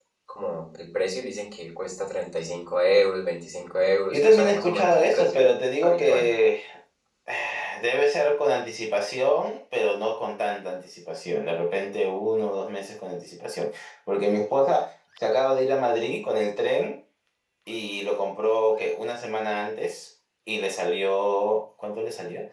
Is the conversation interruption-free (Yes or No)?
No